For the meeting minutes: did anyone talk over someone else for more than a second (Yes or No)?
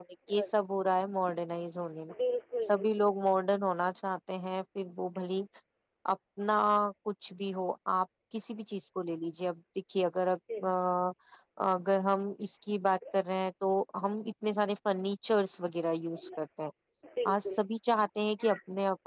No